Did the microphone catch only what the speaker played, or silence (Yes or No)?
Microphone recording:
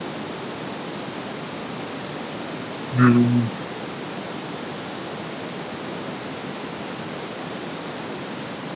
No